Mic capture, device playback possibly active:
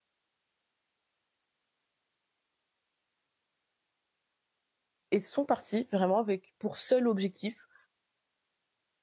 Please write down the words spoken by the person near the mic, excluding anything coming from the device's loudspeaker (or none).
et sont partis vraiment avec pour seul objectif